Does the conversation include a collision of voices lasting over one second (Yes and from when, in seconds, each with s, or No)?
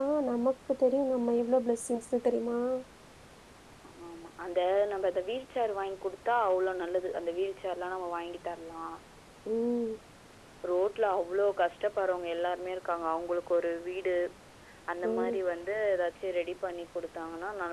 No